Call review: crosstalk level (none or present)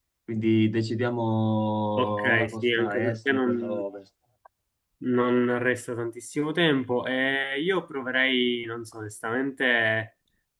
present